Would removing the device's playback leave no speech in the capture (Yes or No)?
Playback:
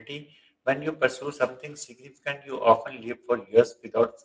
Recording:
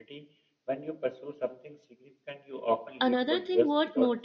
No